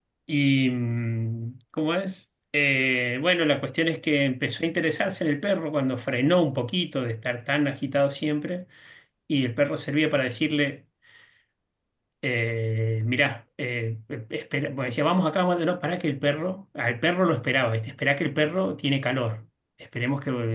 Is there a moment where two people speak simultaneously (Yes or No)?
No